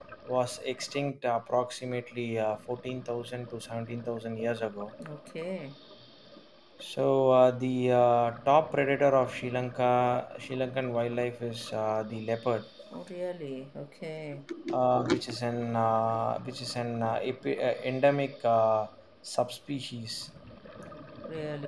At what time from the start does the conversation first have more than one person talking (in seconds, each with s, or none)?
none